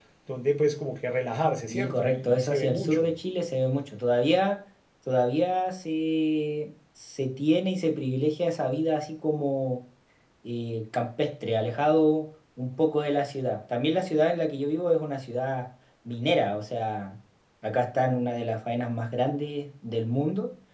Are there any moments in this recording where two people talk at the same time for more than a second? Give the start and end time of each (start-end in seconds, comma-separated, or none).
1.7-3.1